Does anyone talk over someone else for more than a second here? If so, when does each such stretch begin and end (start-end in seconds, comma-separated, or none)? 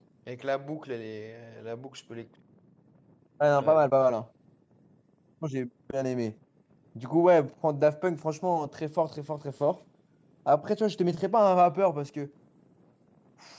none